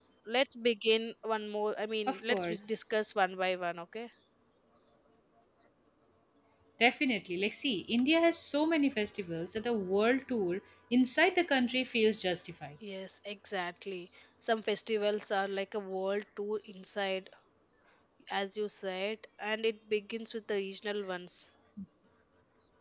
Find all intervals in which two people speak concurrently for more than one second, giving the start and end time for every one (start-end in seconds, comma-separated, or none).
none